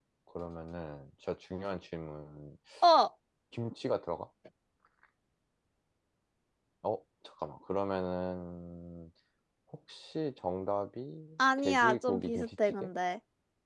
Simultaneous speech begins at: 11.4 s

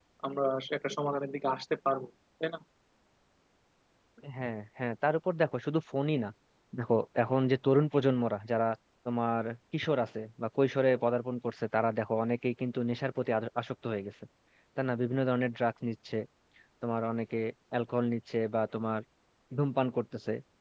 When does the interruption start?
none

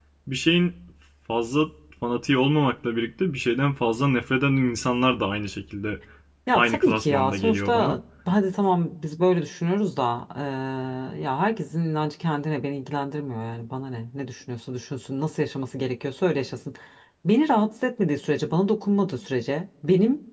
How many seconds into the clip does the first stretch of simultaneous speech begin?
6.5 s

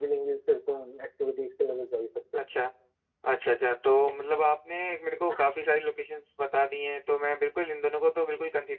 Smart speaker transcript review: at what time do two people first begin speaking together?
none

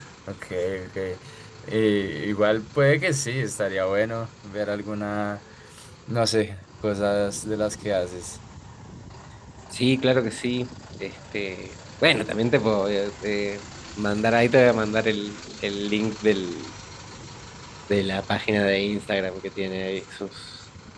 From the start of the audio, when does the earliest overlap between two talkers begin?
none

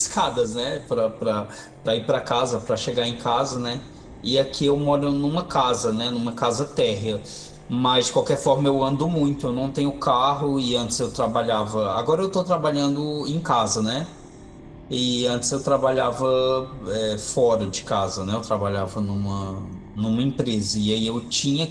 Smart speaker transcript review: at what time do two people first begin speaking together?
none

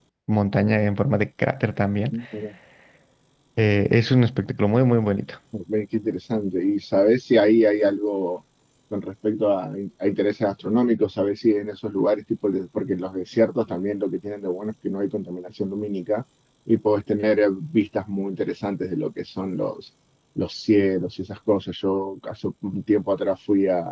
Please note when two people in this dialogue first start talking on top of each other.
none

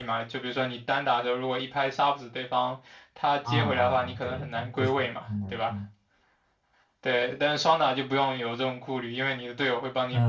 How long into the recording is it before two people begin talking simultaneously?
3.5 s

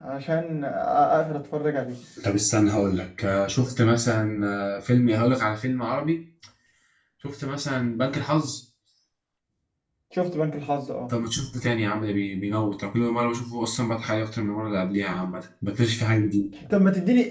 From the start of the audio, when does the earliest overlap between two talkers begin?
none

